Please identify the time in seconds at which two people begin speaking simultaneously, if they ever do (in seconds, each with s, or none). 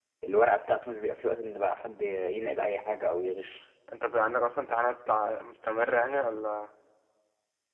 none